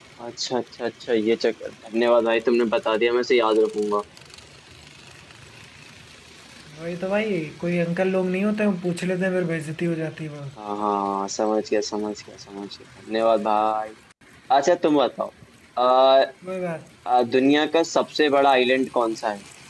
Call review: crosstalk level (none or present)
none